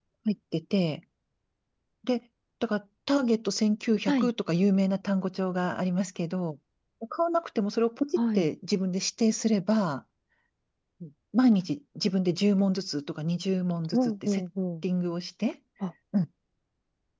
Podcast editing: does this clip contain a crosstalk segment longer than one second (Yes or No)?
No